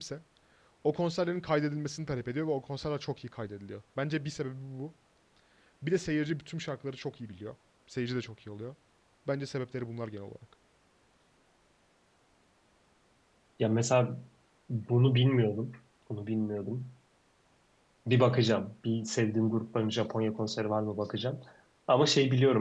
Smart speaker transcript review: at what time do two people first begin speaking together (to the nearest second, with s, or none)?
none